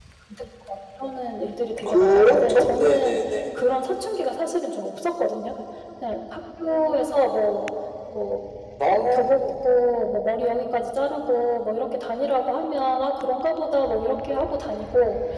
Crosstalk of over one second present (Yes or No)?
Yes